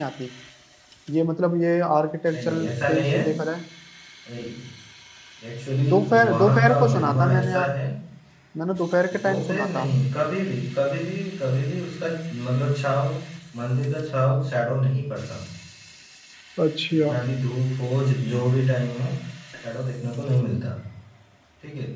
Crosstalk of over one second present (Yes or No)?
Yes